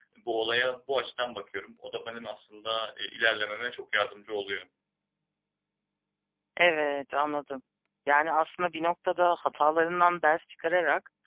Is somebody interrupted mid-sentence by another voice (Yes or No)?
No